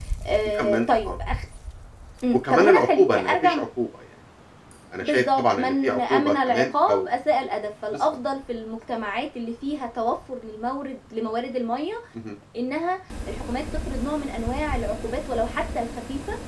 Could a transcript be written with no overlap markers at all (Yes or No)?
No